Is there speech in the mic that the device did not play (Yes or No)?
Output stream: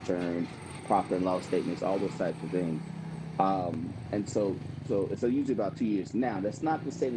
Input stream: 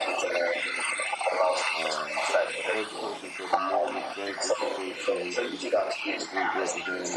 Yes